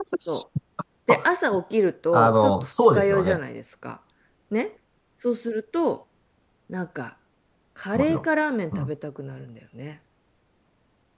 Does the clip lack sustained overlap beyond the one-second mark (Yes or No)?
No